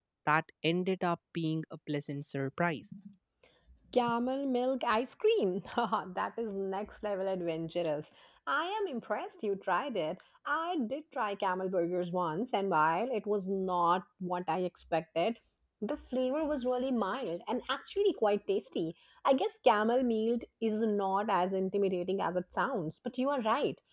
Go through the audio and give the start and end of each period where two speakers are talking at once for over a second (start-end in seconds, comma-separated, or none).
none